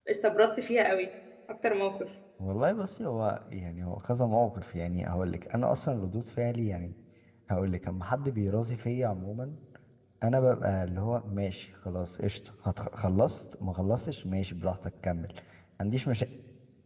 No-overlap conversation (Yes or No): Yes